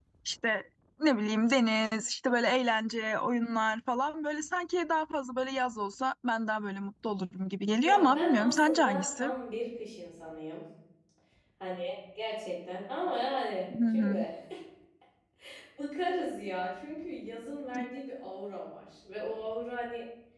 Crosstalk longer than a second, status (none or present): present